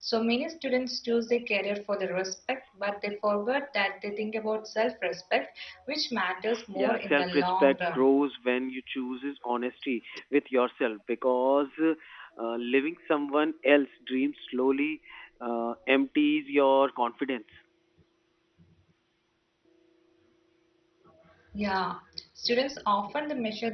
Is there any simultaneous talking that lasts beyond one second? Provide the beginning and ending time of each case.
6.8-8.0

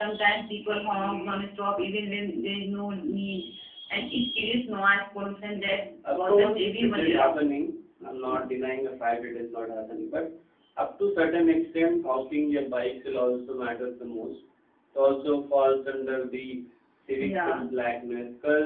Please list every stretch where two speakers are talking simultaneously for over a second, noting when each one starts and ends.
6.0-7.5

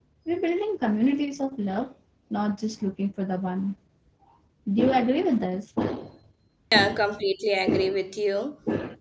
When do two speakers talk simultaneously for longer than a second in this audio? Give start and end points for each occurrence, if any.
none

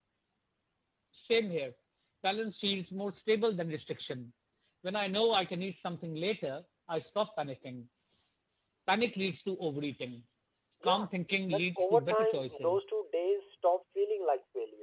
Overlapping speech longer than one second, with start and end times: 11.5-12.8

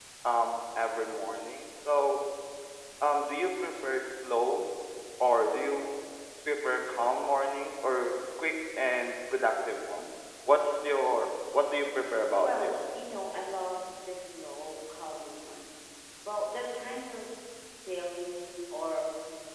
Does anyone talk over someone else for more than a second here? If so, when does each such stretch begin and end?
none

